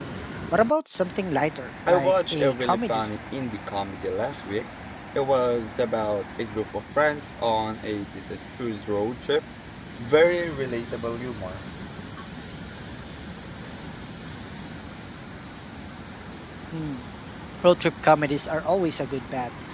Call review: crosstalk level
present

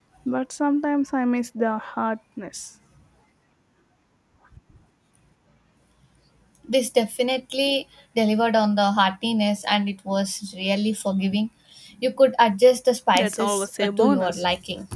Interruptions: present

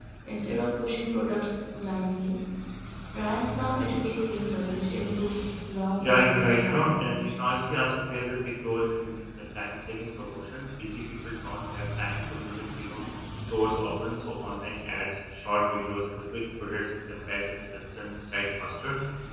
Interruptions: present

